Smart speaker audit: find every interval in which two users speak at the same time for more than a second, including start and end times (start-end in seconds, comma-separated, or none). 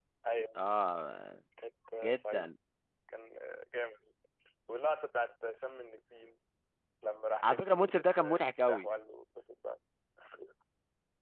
7.4-8.9